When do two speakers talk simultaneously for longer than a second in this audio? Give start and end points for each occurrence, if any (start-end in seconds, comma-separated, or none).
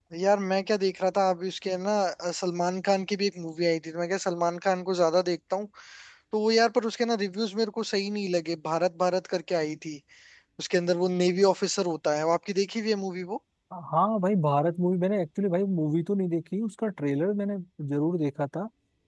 none